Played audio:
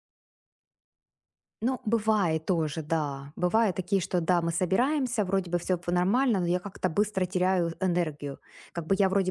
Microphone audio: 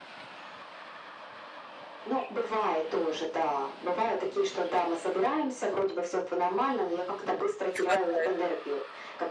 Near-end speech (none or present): present